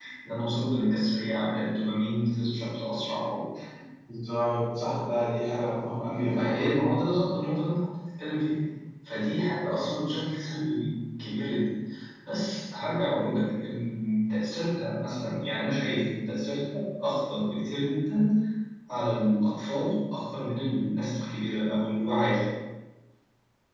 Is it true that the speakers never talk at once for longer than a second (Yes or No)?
Yes